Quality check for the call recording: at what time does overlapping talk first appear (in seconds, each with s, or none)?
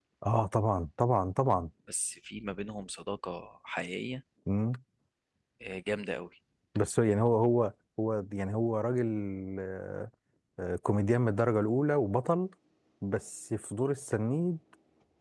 none